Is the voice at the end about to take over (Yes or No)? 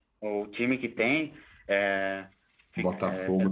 Yes